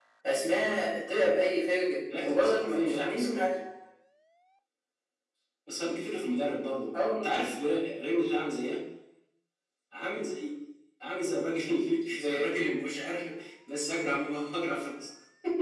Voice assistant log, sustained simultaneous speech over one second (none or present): present